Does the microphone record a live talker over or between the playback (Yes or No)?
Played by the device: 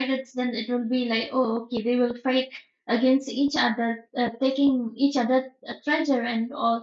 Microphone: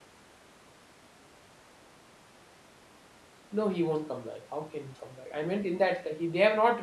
Yes